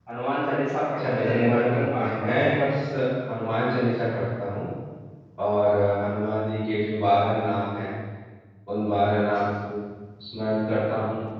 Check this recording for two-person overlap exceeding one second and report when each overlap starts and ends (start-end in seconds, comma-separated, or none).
1.0-2.8